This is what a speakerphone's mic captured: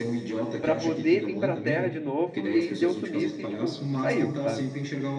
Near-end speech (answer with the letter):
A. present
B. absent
A